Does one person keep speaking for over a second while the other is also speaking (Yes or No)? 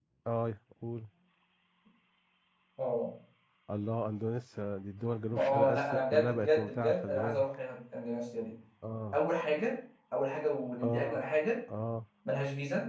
Yes